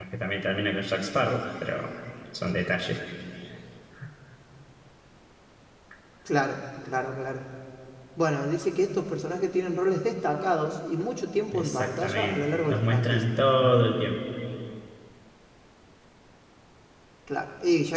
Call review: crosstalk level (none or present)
present